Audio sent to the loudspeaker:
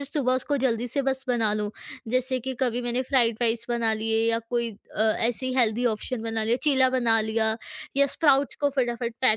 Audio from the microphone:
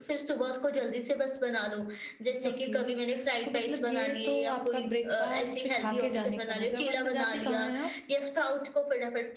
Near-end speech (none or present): present